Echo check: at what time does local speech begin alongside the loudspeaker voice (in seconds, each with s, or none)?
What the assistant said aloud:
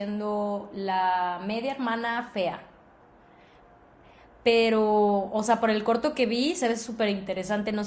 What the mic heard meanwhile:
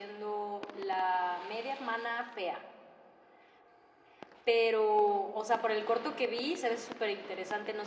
none